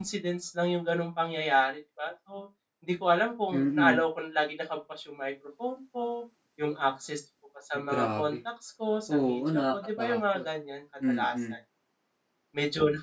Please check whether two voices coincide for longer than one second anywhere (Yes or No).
Yes